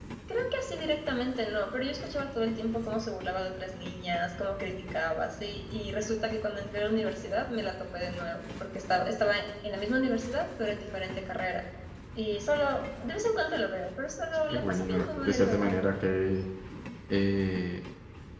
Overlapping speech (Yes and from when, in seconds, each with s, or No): Yes, from 14.5 s